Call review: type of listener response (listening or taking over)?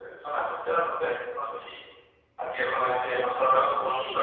taking over